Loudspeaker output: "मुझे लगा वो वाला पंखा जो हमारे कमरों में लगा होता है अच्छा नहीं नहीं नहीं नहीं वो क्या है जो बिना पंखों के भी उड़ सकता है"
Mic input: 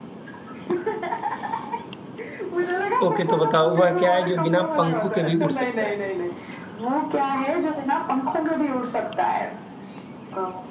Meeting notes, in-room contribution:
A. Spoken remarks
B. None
A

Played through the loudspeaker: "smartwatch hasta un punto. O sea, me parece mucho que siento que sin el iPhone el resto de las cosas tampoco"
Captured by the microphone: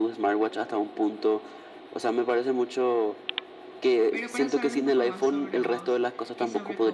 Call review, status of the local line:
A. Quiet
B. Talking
B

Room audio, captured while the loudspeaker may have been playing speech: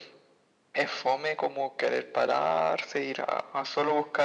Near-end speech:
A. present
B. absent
B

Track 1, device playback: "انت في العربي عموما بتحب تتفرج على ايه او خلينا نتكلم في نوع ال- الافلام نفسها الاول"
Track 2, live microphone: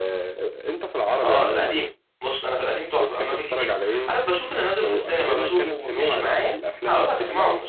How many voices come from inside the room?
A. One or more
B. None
A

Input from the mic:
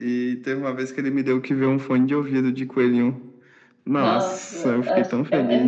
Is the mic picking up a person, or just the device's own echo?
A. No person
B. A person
B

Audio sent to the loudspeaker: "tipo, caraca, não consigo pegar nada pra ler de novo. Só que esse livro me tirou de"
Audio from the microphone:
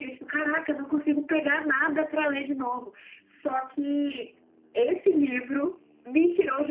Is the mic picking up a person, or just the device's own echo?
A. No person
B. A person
A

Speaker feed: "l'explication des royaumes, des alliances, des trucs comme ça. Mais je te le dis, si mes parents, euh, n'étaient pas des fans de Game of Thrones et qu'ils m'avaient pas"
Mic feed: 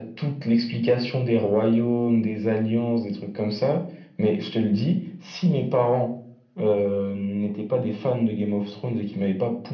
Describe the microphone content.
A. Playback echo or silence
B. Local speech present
A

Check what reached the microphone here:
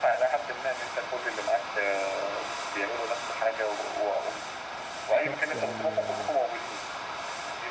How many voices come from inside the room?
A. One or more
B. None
A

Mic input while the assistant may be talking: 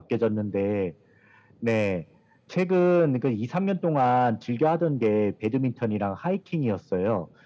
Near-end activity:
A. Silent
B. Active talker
A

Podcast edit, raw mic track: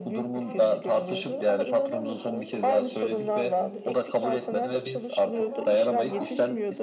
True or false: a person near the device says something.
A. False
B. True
B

